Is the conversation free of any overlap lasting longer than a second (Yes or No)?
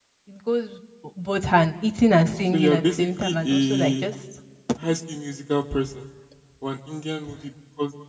No